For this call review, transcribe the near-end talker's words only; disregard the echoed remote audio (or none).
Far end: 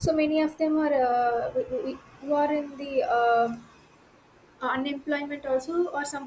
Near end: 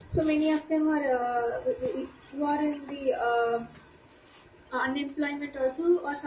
none